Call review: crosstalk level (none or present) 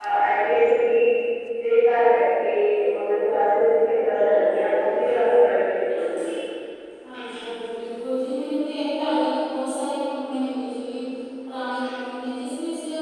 none